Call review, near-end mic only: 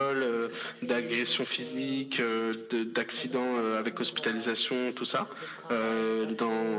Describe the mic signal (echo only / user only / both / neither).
both